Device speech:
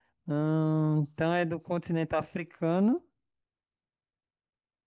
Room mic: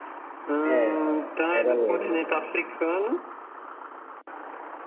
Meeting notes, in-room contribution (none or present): present